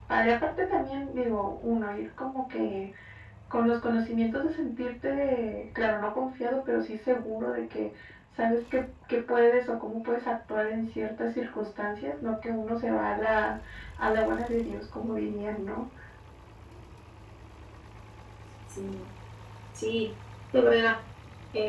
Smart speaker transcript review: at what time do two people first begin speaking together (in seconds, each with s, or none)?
none